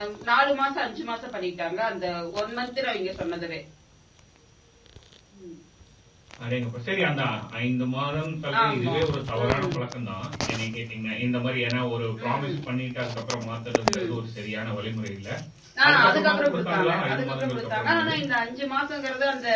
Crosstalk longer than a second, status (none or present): present